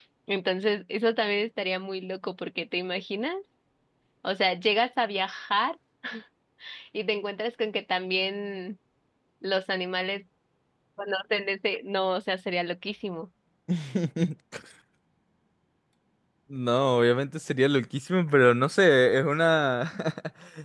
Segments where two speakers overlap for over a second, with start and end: none

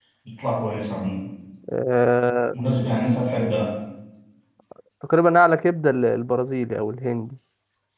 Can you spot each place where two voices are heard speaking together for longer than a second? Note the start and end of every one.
none

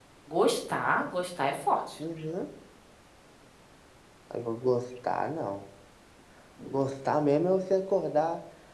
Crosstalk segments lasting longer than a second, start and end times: none

